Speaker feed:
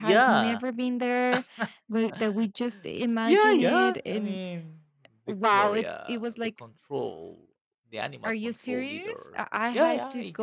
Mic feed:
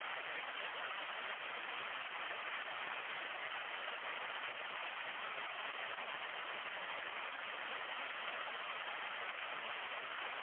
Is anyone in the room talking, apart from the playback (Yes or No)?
No